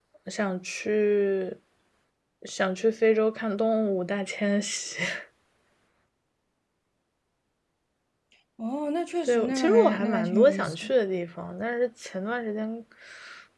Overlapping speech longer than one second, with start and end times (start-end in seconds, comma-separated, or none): 9.2-10.9